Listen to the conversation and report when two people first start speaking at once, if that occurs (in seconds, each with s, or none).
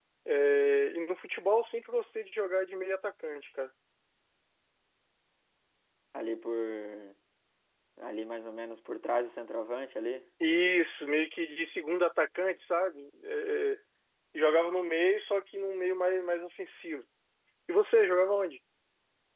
none